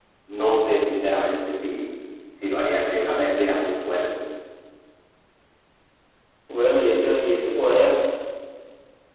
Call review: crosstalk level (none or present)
none